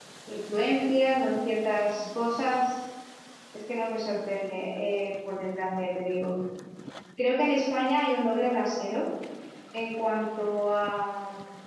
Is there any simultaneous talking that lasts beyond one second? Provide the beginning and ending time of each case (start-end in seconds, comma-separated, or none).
none